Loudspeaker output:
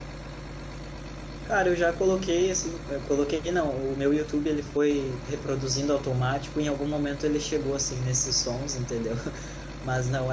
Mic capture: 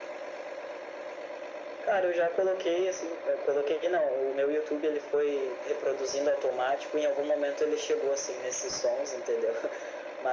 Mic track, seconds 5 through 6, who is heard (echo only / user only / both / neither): echo only